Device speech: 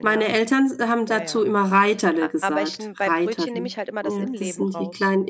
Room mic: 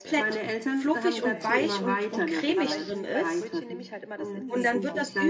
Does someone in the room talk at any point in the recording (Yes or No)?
Yes